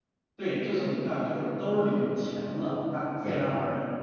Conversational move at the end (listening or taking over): listening